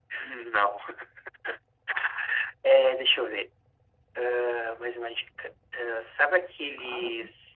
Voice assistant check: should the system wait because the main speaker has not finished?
Yes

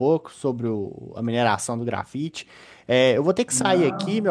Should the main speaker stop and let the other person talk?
No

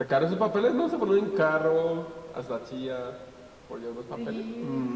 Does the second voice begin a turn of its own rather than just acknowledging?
Yes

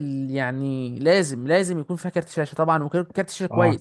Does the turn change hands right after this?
Yes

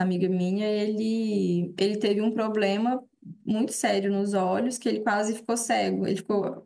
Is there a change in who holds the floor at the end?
No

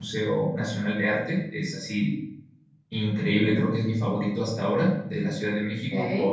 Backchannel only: Yes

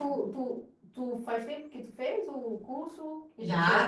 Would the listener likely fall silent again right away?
No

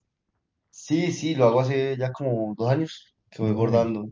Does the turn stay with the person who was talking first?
Yes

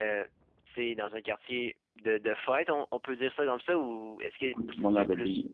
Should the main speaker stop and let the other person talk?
Yes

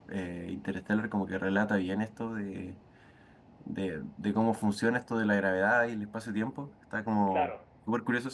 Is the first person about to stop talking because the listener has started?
No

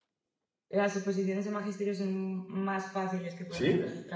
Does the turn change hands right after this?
No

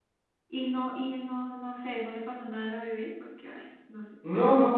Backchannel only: No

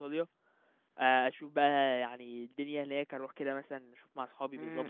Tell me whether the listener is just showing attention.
No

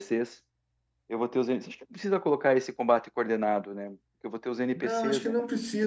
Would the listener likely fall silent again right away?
No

